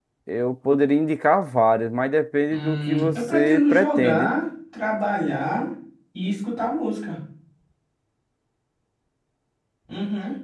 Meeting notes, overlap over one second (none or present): present